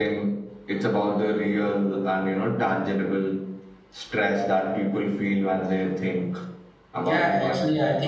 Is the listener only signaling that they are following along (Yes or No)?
No